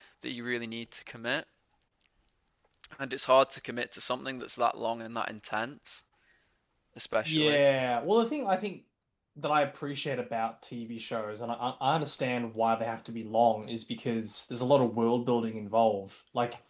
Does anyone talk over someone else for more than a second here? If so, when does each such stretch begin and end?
none

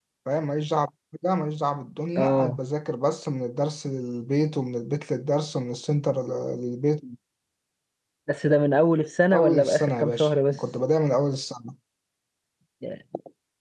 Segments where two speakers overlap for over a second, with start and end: 9.3-10.6

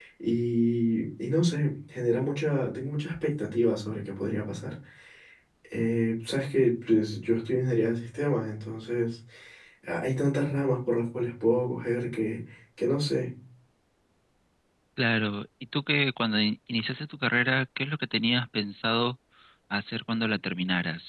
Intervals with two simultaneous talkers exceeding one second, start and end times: none

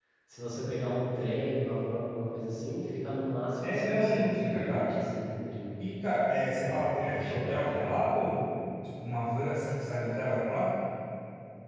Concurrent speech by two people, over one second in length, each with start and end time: 3.6-4.9, 6.6-7.9

